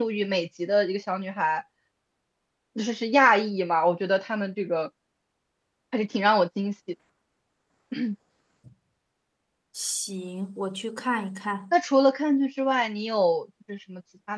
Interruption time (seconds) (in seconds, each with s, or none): none